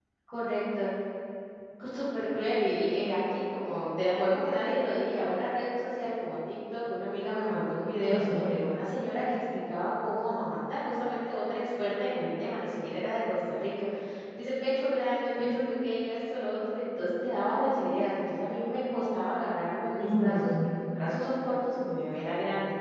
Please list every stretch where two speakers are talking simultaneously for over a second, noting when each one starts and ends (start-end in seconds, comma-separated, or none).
none